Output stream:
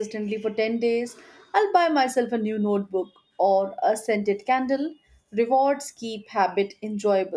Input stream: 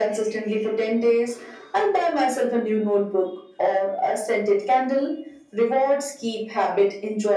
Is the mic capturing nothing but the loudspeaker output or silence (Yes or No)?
Yes